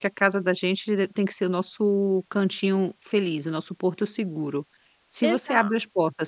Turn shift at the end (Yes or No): No